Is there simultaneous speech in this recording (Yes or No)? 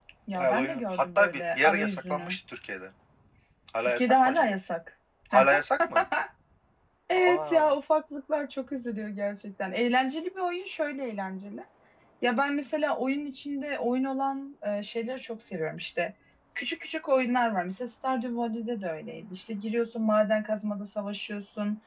Yes